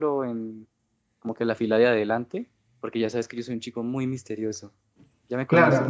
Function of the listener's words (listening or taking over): taking over